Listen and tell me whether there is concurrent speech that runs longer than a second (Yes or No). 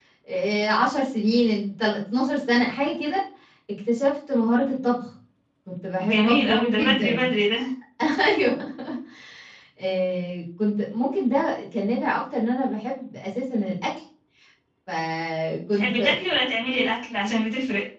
Yes